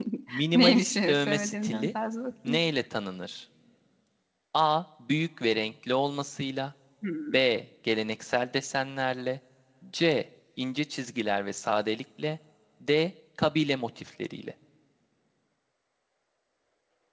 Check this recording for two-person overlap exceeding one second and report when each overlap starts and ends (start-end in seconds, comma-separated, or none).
0.5-1.9